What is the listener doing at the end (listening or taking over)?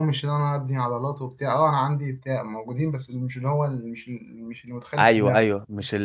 taking over